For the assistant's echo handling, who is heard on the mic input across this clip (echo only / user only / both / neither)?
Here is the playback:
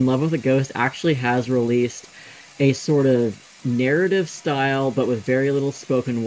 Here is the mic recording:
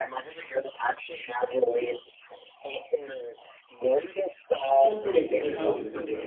both